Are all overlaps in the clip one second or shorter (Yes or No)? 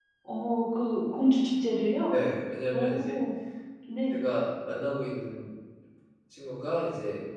Yes